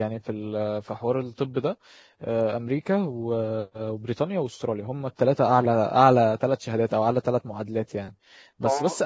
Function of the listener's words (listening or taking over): listening